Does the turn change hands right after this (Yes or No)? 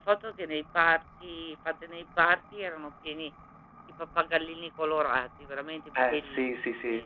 Yes